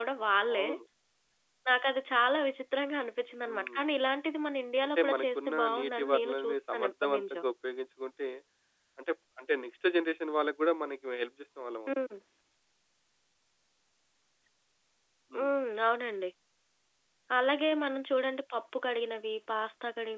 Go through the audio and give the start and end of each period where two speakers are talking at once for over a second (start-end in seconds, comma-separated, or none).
5.0-7.4